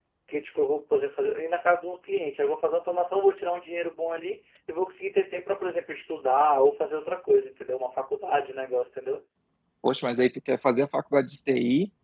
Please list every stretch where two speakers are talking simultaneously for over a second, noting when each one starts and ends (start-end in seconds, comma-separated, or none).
none